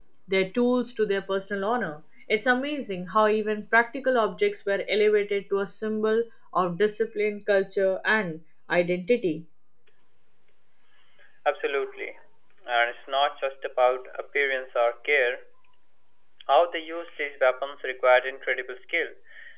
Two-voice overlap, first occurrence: none

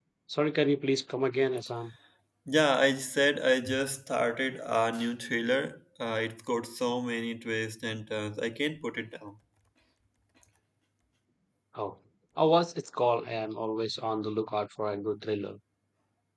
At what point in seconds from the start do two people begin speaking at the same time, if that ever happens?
none

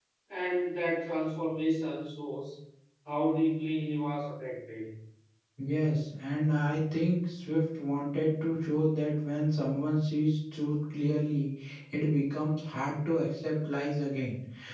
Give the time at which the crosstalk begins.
none

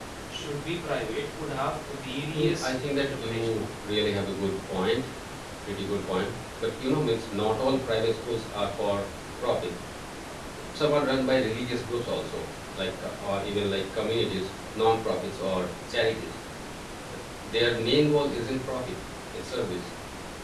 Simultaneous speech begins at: 2.3 s

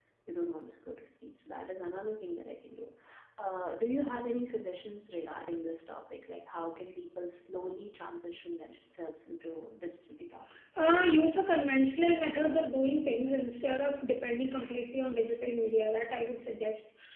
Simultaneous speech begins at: none

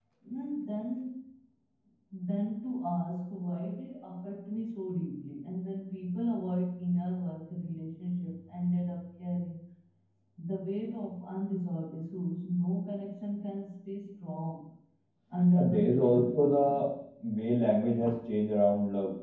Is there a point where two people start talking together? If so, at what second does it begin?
15.6 s

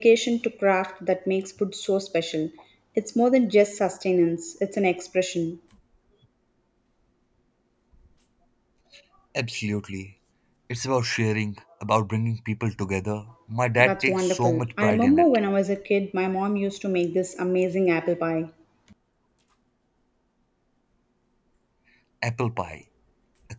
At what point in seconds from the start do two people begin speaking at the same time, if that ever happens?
13.8 s

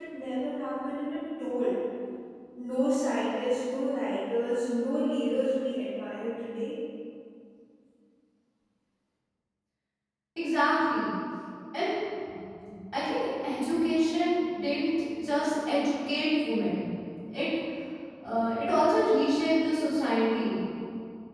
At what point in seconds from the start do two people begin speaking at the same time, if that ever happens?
none

